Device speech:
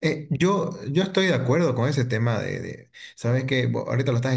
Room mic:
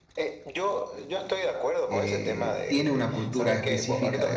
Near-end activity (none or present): present